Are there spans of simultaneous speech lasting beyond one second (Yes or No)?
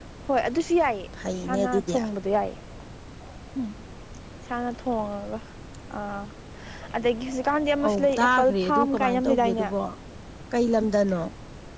Yes